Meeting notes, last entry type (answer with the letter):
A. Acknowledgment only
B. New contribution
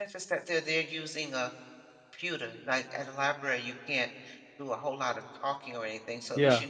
A